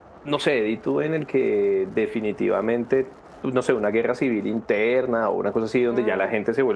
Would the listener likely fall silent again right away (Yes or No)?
Yes